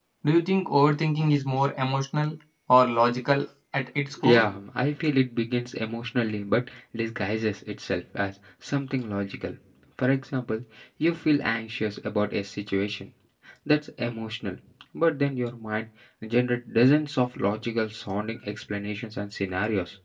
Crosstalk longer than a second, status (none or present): none